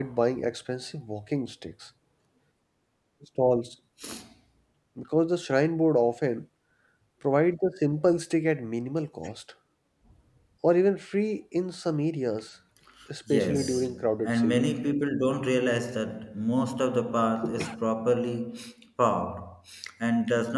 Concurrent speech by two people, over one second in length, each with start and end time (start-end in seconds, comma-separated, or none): 13.3-14.7